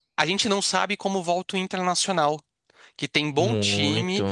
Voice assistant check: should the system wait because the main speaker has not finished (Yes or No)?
Yes